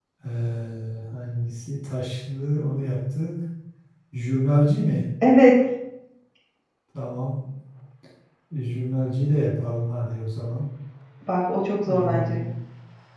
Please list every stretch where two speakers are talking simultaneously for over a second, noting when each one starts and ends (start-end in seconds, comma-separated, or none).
none